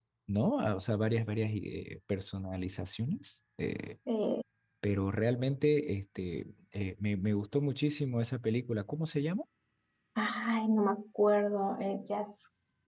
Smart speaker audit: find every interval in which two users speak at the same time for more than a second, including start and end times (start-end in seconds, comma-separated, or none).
none